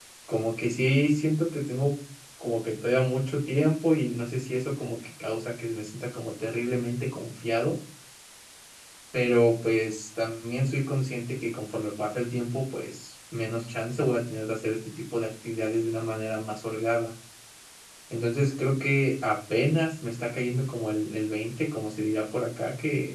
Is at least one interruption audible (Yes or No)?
No